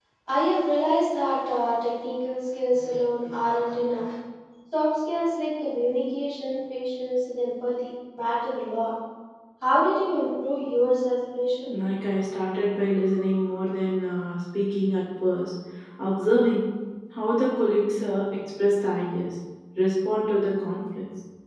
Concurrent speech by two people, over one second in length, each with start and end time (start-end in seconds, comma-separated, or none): none